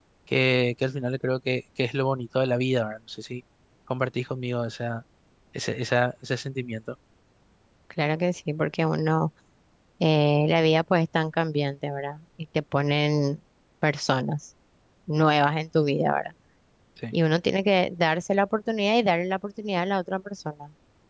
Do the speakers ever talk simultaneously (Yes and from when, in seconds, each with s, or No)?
No